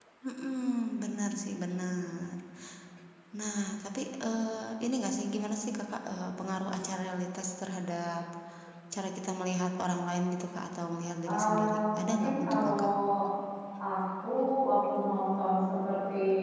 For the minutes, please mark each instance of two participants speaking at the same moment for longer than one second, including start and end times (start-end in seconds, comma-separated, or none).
11.3-12.9